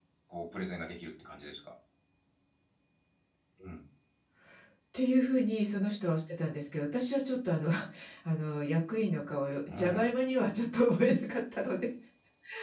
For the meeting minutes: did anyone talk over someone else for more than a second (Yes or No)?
No